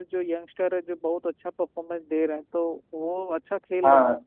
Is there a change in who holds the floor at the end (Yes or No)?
Yes